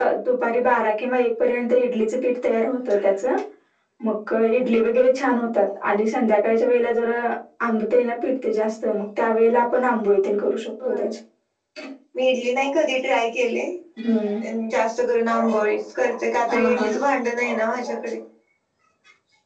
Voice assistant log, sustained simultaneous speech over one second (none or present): none